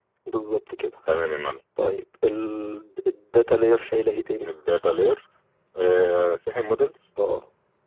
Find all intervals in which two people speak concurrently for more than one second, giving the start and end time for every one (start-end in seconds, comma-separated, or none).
none